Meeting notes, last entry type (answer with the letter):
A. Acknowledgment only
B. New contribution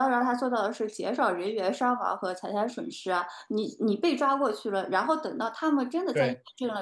A